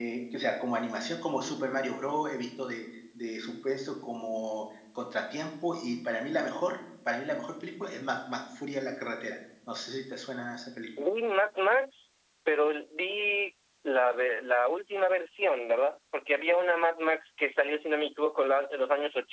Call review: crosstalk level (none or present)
none